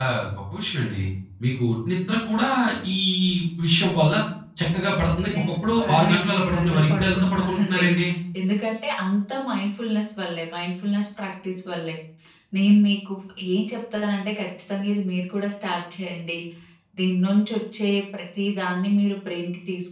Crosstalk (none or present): present